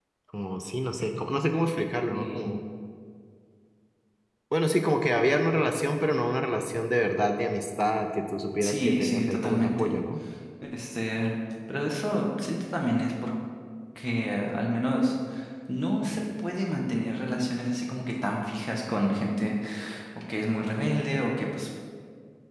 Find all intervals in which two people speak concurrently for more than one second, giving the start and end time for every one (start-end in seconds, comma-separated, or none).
8.6-9.9